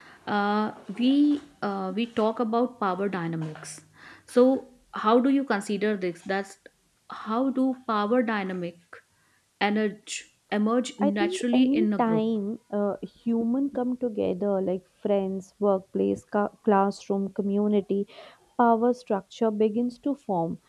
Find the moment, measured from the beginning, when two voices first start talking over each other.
11.0 s

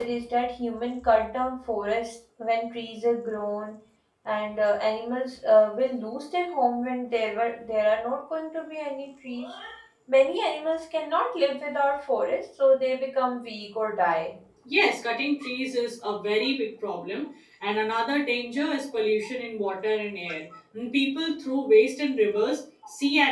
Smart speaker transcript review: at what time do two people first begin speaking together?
none

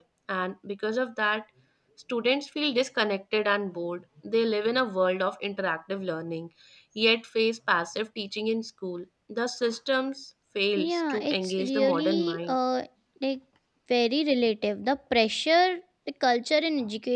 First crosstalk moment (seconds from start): 10.8 s

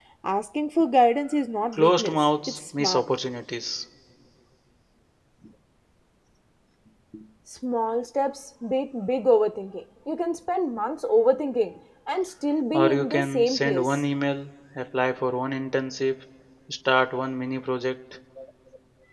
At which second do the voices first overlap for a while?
1.7 s

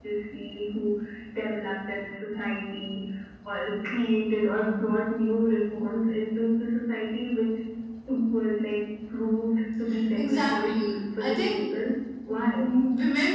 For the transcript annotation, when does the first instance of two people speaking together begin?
9.9 s

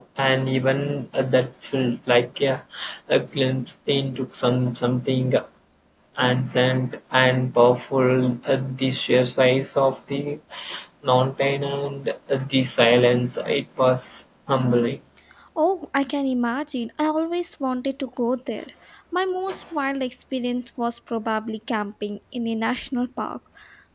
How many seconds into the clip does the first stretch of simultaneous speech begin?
none

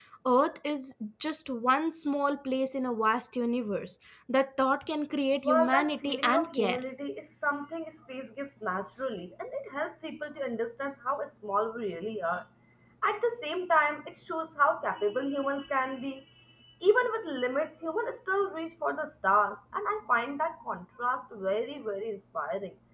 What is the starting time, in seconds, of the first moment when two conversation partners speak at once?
5.4 s

